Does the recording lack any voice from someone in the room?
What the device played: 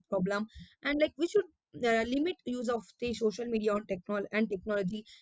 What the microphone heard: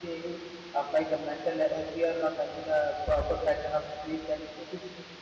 No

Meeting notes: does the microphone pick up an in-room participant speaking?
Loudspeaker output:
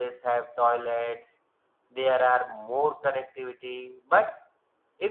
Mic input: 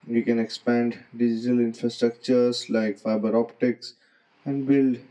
Yes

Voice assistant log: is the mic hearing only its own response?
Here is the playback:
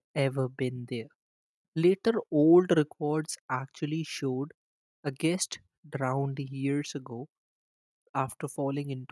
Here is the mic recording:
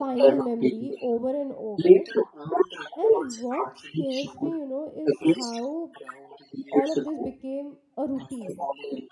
No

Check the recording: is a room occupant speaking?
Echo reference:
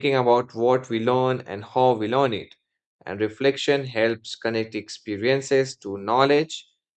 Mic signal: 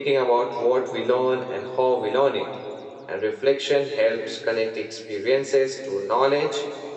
No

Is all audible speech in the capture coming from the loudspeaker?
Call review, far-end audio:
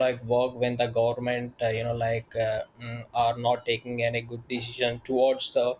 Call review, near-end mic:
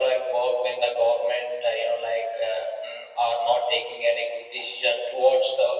Yes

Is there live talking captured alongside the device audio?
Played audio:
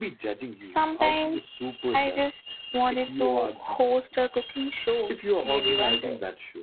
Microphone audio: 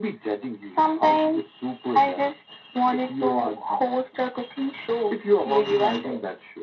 No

